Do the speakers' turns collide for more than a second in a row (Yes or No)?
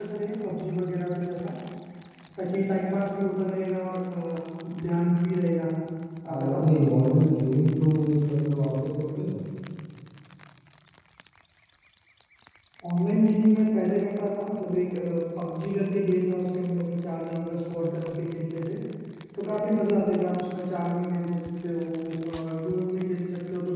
No